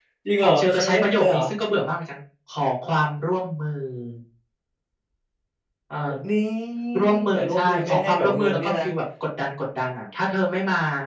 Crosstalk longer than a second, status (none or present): present